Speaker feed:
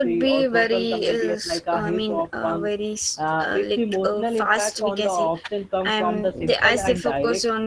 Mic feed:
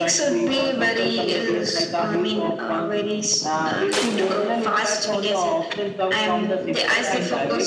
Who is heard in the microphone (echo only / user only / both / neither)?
echo only